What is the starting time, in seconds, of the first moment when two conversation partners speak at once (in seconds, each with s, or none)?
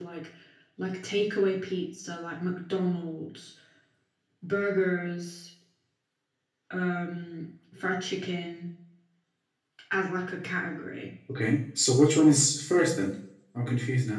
none